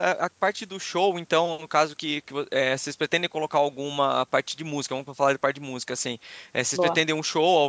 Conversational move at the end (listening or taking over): listening